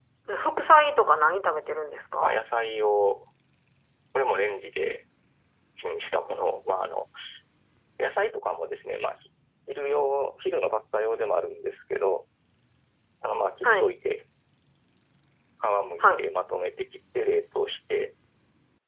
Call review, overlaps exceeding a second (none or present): none